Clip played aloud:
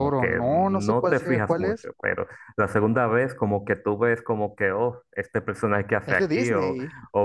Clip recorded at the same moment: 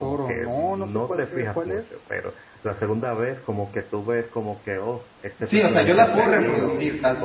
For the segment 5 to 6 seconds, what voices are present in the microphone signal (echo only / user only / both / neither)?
both